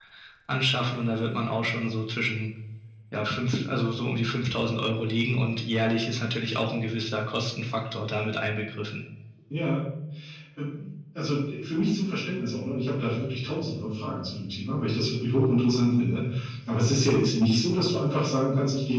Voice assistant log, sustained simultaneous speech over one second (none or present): none